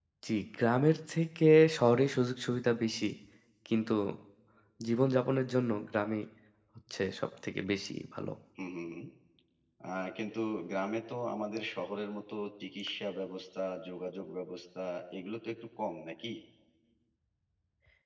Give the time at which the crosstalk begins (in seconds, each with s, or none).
none